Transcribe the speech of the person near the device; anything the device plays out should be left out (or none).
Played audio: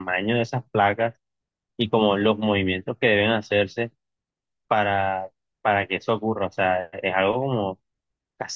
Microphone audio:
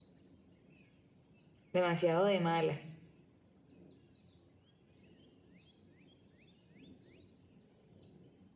demasiado de malas.